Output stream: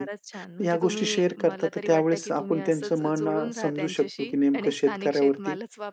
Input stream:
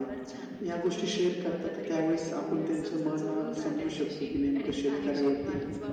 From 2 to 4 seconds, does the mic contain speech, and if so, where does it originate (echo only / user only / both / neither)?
echo only